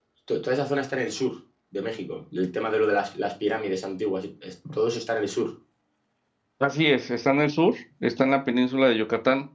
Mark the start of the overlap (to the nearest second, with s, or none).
none